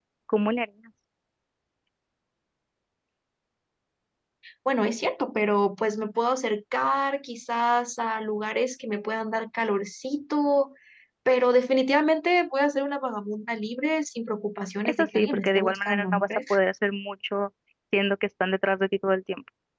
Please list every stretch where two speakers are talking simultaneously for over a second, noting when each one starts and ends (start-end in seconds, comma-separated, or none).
14.8-16.6